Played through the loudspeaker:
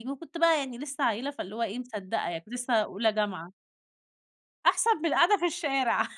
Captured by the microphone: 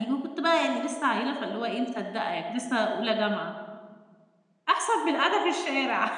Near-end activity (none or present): none